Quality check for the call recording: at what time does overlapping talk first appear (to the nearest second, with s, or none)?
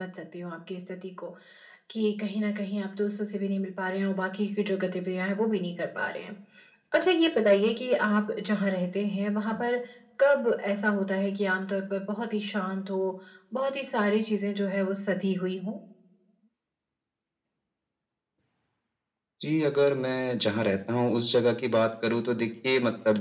none